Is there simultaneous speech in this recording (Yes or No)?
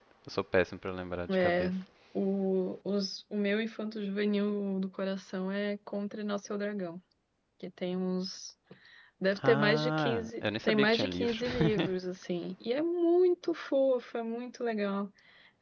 Yes